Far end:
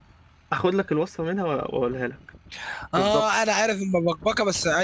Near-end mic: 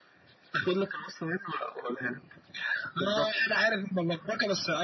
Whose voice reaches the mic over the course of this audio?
echo only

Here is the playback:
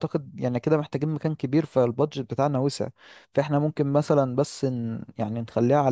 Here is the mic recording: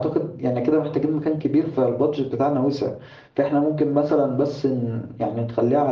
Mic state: echo only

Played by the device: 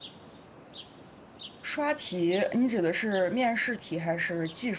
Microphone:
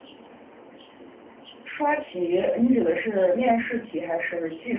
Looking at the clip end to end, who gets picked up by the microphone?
echo only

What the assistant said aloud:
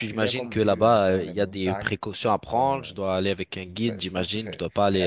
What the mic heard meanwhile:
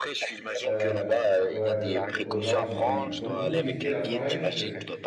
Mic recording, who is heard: both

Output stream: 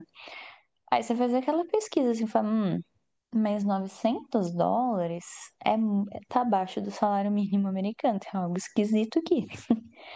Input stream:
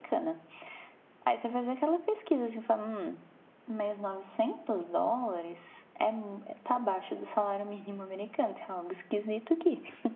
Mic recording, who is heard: echo only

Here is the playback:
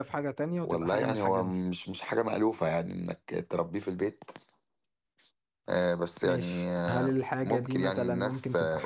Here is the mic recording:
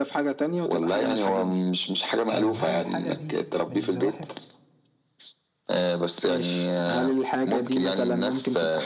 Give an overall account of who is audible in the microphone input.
both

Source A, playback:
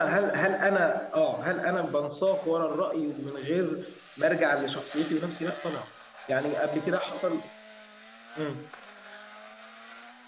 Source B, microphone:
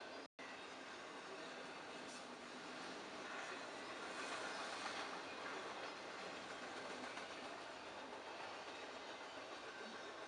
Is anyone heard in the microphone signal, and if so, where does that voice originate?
neither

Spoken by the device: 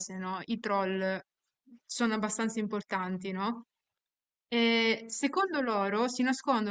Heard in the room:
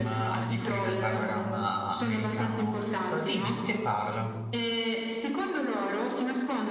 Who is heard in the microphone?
both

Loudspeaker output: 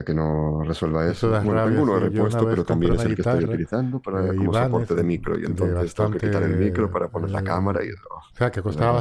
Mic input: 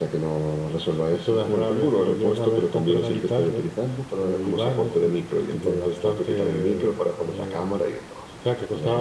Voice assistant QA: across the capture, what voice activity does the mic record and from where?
echo only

